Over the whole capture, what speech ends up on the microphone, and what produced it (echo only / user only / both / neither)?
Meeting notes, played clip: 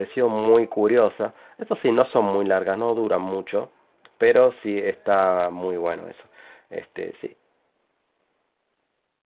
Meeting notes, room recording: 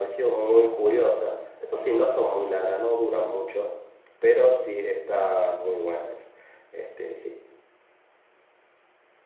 echo only